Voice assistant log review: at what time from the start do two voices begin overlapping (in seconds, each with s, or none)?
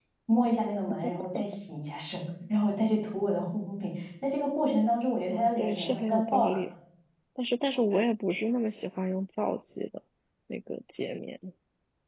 5.3 s